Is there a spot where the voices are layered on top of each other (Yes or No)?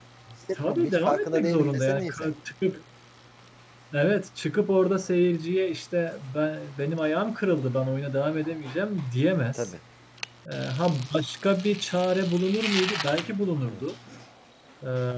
Yes